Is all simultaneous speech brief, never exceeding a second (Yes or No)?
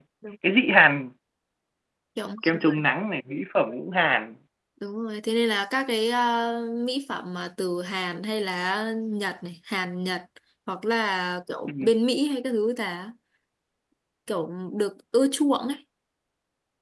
Yes